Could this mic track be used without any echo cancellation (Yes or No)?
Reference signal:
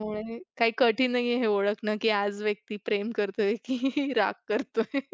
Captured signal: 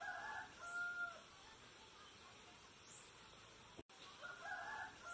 Yes